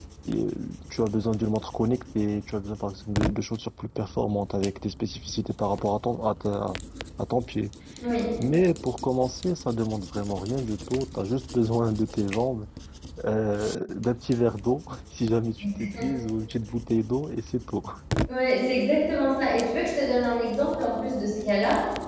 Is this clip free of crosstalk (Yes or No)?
Yes